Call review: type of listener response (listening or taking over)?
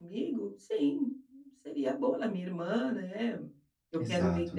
listening